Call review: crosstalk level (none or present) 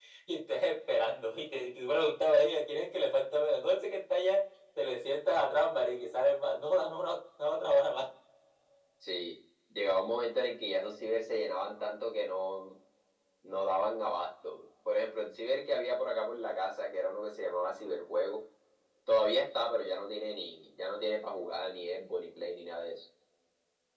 none